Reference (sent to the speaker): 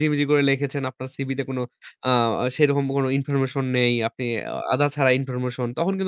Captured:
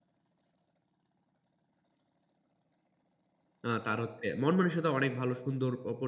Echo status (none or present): none